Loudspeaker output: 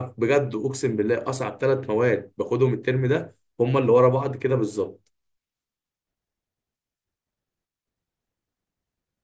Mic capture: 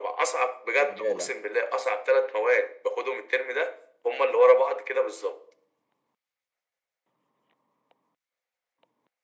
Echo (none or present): present